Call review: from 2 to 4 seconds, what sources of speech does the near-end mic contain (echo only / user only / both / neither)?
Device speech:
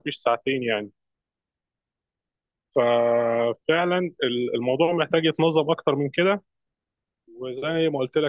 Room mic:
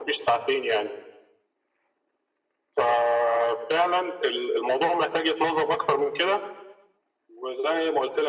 echo only